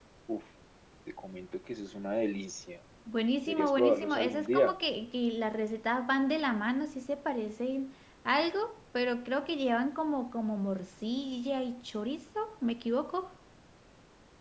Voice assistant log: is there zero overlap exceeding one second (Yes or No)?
No